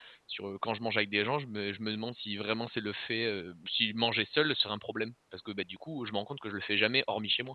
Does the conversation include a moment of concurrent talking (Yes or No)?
No